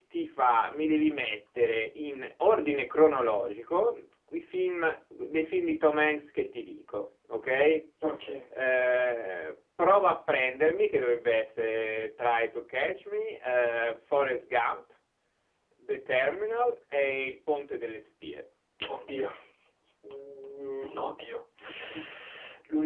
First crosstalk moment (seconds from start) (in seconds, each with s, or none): none